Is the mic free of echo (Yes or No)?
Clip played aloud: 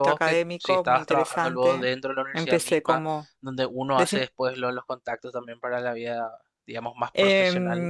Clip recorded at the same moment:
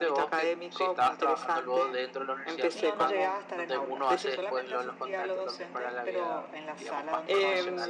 No